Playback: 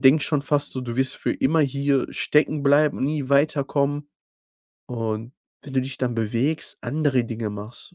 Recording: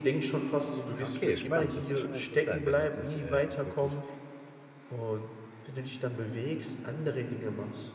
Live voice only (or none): Ah, okay, spannend. Das ist ja schon mal interessant, wenn das dich, äh, auch wirklich